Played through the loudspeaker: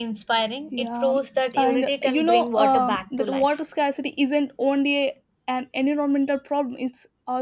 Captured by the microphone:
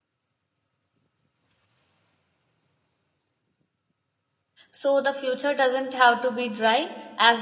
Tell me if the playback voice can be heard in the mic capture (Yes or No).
No